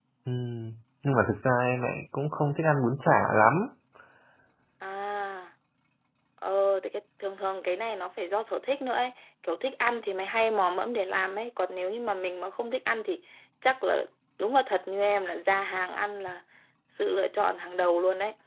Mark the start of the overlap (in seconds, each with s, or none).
none